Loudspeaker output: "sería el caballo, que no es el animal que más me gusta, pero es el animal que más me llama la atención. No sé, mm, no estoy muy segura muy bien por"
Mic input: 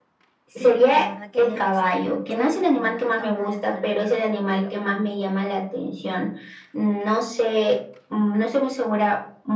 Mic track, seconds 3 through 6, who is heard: both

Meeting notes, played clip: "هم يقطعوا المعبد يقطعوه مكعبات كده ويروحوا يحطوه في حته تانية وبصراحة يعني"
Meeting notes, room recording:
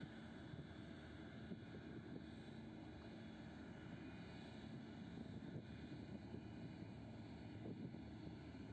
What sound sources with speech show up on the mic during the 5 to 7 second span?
neither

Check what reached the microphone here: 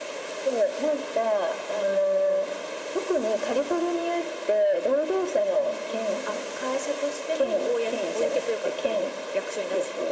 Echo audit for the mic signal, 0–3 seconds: echo only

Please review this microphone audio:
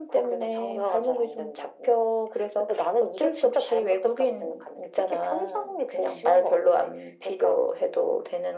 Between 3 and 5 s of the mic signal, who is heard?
echo only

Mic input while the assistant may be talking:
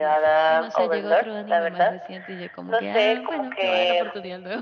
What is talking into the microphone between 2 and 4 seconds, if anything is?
both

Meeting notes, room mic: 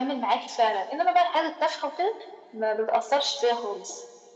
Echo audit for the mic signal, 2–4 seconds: echo only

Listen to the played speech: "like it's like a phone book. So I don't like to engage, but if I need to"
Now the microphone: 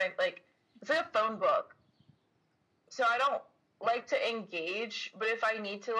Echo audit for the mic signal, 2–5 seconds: echo only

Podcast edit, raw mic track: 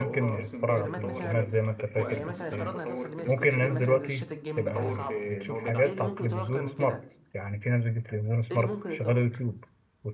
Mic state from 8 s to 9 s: both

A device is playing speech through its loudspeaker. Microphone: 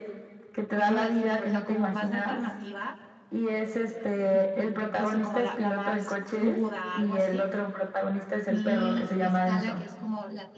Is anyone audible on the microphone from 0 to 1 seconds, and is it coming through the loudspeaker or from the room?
both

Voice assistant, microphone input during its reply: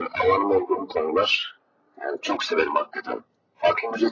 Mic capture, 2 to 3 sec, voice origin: echo only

